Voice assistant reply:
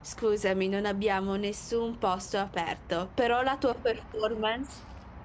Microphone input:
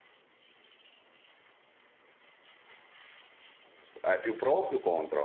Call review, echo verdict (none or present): none